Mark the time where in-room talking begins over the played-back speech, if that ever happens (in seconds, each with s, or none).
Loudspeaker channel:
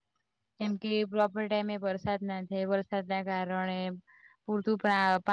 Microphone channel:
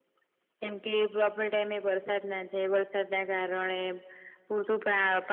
none